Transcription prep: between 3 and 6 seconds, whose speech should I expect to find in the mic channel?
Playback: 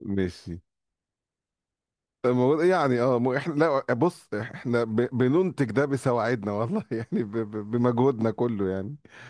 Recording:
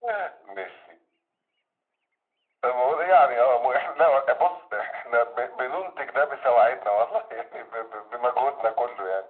echo only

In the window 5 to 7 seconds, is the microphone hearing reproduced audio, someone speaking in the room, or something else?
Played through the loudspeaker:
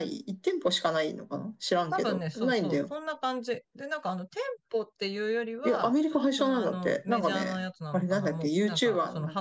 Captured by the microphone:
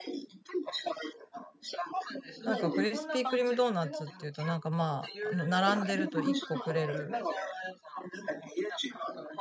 both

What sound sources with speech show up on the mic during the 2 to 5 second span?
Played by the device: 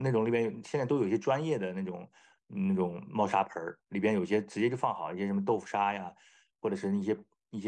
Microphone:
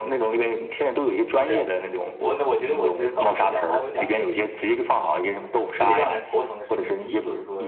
both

